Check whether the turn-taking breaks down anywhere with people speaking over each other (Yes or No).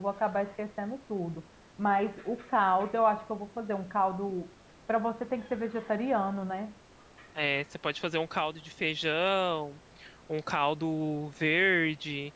No